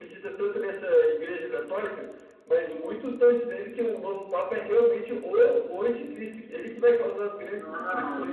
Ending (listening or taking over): taking over